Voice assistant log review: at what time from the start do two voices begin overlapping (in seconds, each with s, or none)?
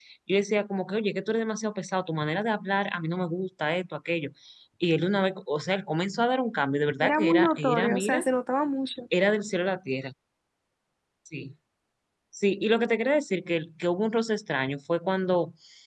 7.0 s